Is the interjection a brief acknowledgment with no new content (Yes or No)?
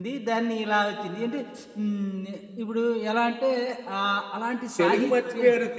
No